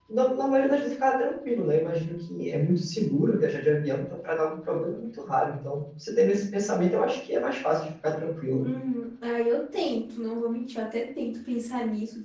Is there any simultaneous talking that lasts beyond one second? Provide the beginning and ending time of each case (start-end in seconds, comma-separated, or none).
none